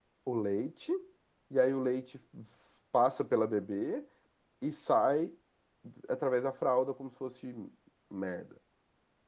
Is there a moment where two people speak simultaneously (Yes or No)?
No